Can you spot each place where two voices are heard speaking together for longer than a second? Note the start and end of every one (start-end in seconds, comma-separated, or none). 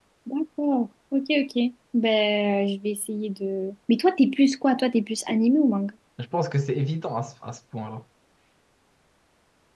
none